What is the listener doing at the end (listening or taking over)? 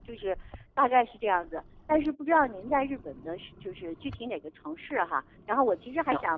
listening